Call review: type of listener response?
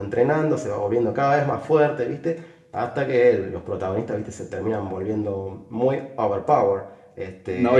taking over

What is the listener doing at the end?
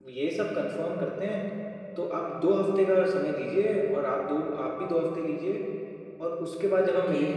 listening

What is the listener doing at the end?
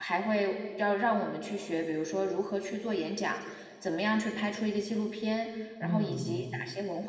listening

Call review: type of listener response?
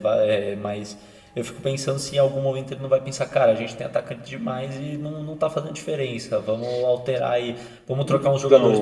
listening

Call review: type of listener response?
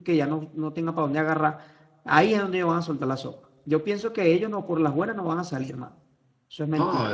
taking over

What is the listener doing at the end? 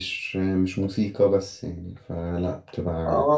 taking over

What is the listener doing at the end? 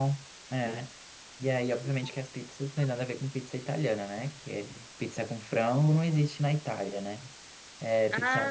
listening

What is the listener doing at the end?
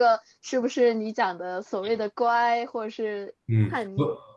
taking over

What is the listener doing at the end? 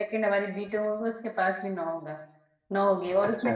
listening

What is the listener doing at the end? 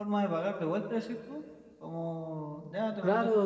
taking over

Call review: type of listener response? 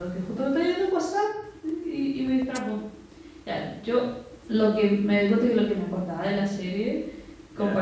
listening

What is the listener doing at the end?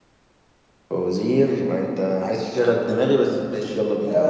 taking over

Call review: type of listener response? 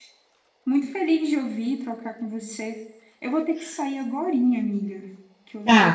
listening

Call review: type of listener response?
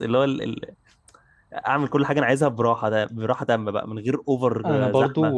taking over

